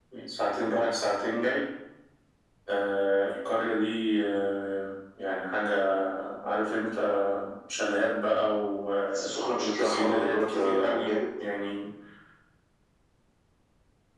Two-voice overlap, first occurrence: 9.1 s

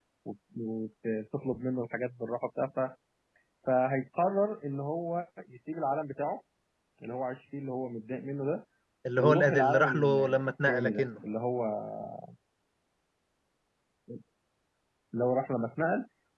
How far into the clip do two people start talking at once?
9.2 s

